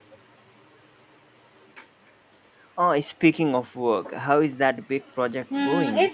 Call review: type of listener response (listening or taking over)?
taking over